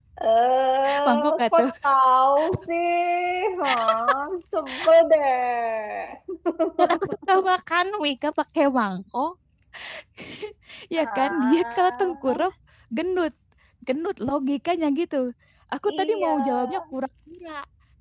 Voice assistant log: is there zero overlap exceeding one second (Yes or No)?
No